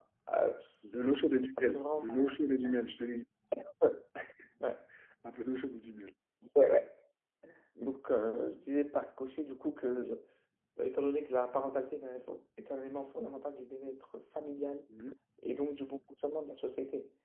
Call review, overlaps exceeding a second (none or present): present